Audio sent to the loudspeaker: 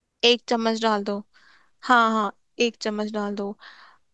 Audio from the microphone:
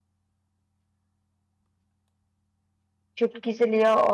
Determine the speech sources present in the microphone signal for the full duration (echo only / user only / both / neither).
user only